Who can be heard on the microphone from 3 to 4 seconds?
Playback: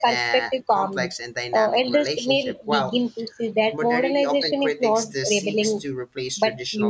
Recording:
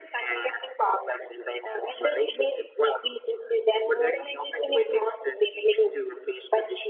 echo only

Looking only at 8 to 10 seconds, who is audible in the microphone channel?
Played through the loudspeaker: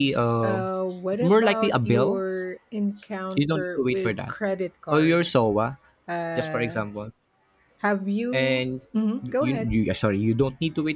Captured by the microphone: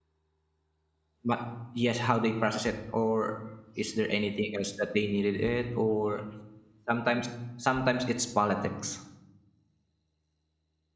user only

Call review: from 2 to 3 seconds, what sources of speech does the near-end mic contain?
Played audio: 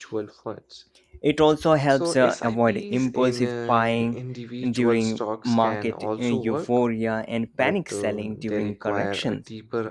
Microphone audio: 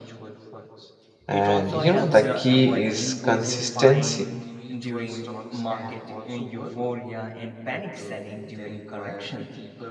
both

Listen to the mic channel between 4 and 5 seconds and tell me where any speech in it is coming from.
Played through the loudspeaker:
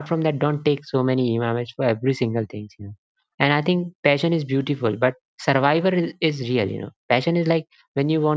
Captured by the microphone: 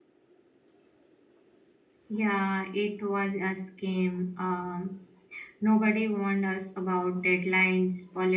user only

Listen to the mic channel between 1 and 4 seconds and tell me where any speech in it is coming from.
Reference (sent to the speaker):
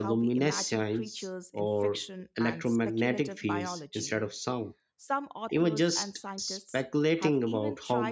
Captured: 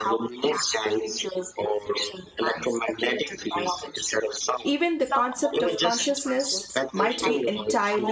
echo only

